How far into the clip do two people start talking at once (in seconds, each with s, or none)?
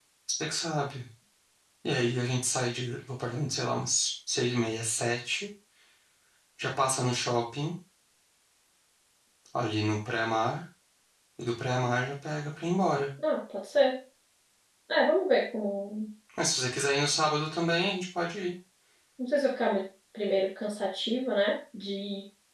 none